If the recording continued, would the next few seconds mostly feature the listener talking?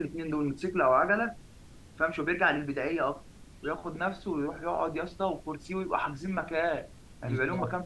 No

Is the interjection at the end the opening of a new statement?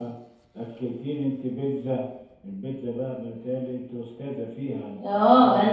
Yes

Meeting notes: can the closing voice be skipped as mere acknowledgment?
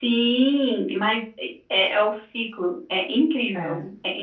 Yes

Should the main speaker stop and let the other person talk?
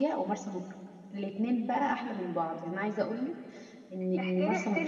Yes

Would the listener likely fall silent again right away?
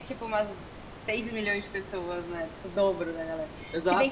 No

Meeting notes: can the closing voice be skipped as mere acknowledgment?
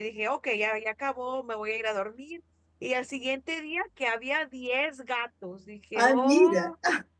Yes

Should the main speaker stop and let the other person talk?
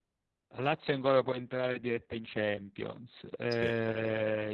No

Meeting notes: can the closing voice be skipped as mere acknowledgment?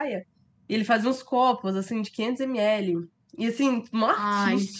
Yes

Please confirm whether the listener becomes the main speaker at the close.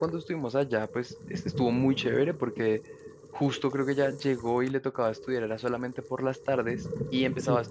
No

